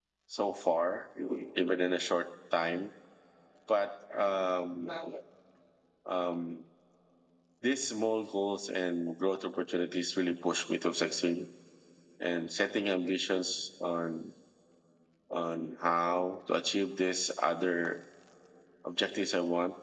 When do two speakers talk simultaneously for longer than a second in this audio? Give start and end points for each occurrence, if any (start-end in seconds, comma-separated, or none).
none